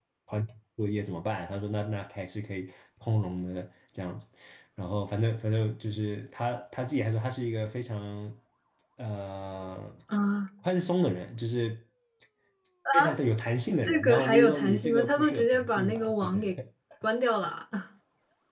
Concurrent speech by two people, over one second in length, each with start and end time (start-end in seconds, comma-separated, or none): 13.8-16.4